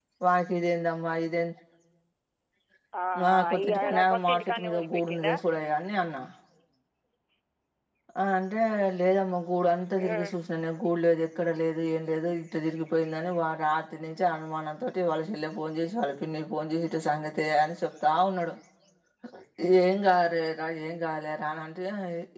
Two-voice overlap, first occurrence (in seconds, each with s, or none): 3.2 s